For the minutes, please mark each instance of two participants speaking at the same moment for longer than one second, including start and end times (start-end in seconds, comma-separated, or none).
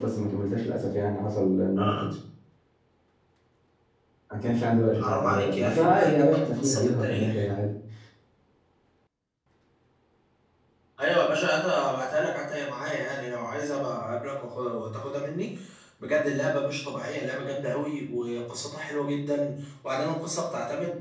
4.9-7.5